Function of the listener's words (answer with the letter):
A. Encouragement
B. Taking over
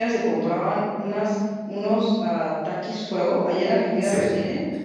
B